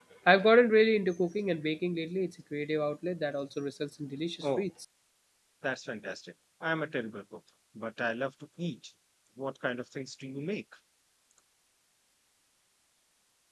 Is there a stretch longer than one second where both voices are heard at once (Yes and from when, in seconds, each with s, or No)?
No